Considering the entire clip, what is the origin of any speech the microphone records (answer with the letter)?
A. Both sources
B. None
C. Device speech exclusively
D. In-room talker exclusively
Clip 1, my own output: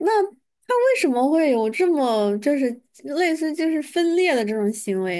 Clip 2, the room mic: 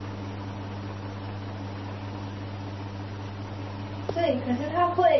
D